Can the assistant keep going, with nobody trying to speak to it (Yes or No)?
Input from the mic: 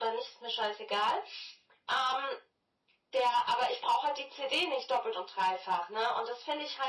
Yes